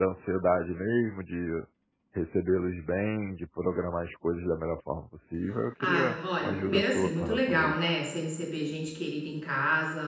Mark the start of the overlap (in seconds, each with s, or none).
5.8 s